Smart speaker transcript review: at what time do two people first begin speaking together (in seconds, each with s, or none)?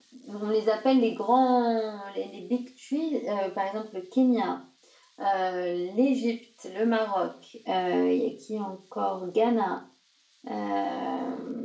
none